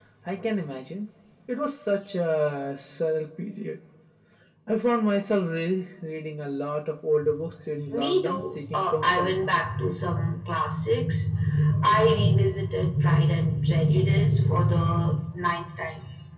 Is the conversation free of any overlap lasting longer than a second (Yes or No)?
No